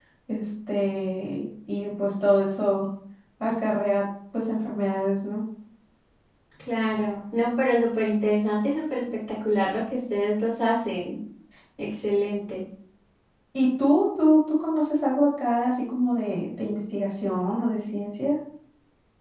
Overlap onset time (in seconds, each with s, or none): none